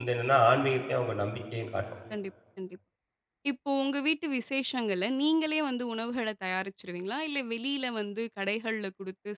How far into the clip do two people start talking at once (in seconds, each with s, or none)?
none